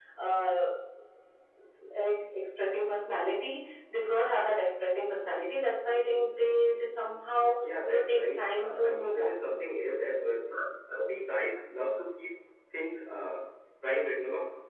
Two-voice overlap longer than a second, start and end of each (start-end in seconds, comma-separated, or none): 7.8-9.3